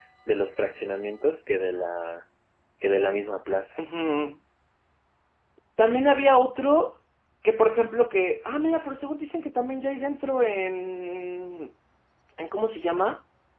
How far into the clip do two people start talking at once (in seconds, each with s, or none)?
none